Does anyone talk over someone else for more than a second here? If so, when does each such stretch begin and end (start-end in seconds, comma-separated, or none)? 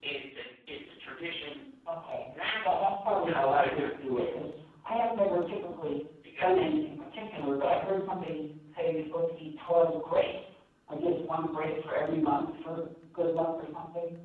2.7-4.5